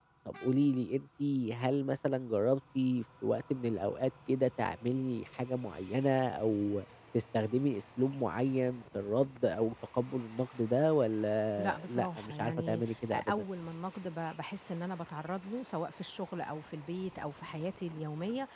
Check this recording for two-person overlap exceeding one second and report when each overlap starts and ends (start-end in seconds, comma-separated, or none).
11.6-13.4